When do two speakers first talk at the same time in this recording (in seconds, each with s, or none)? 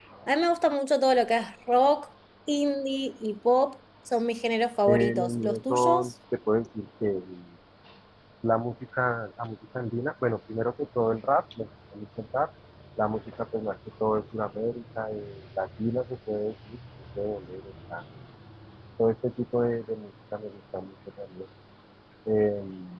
4.8 s